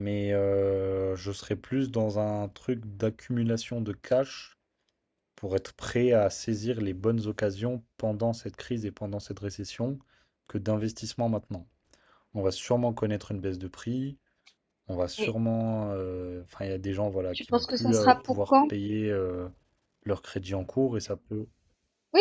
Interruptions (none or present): present